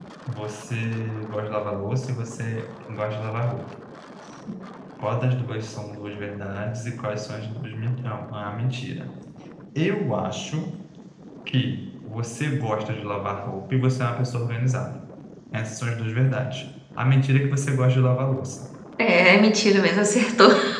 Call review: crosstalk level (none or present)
none